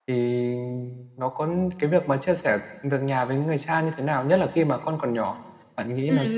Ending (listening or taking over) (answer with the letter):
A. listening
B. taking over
B